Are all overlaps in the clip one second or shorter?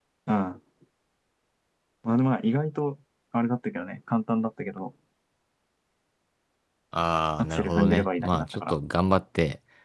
No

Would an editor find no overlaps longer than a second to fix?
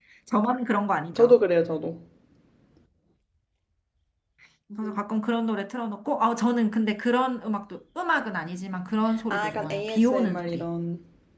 No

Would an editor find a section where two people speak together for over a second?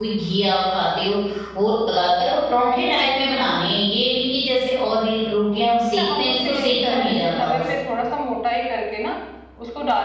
Yes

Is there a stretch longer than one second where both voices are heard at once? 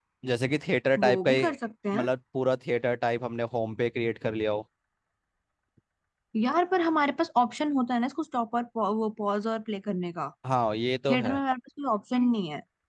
No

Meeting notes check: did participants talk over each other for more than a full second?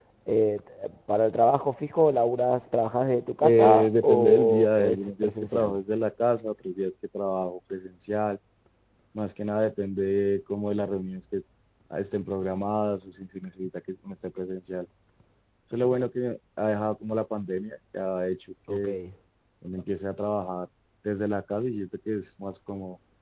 Yes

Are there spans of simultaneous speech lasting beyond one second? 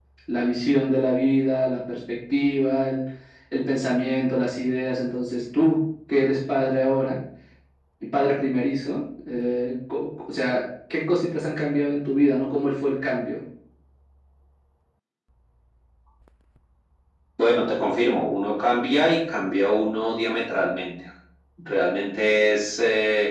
No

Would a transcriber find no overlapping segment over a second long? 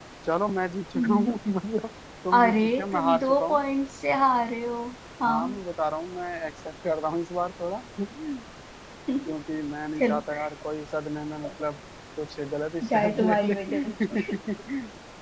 No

